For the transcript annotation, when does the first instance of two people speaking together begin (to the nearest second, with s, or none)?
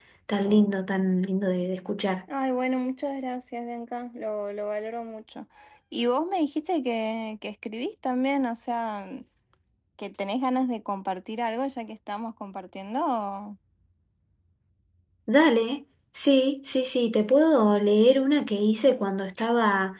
none